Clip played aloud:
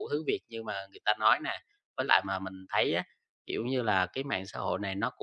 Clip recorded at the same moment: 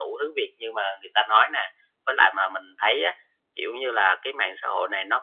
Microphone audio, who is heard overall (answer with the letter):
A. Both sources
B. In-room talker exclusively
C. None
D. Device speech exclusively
D